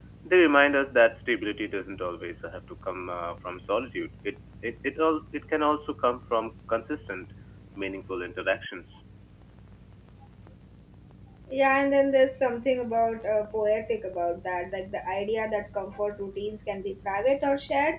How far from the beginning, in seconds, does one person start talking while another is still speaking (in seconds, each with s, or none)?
none